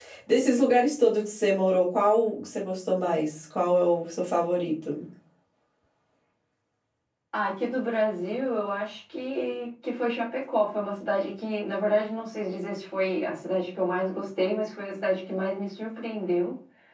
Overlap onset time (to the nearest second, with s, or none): none